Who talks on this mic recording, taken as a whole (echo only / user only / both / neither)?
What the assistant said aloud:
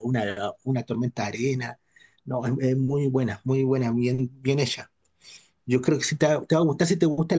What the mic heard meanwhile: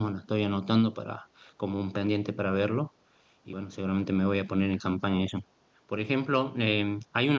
user only